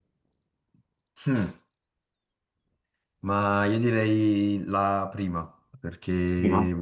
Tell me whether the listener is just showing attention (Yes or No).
Yes